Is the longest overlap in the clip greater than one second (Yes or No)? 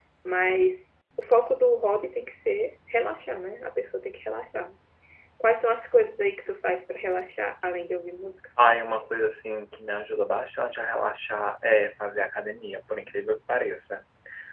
No